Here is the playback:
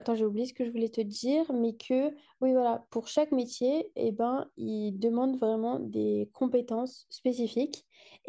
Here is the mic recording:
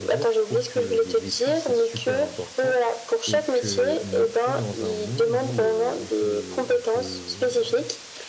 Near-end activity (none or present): present